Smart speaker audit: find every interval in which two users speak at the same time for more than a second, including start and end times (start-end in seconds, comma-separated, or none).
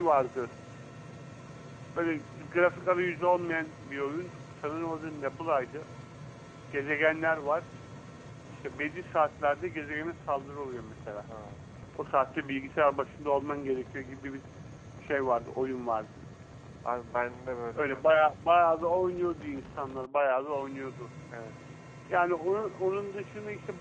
none